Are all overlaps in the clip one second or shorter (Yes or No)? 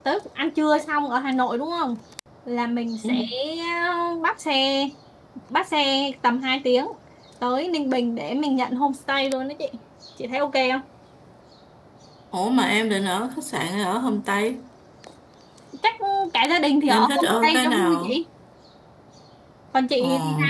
No